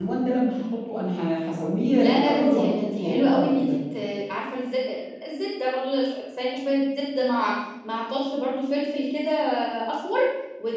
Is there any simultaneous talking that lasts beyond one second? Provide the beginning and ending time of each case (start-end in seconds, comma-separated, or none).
2.0-3.8